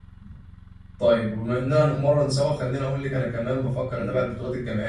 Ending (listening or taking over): listening